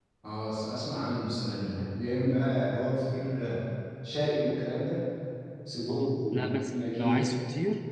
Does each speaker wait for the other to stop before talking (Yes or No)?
No